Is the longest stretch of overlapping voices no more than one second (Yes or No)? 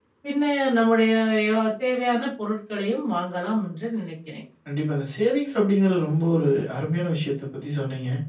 Yes